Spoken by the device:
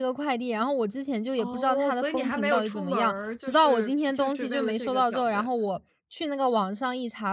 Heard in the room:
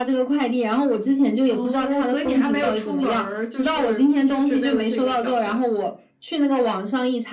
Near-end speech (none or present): none